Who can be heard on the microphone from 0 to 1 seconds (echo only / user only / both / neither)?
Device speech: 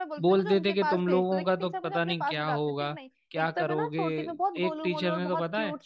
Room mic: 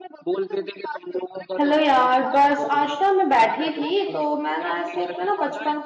echo only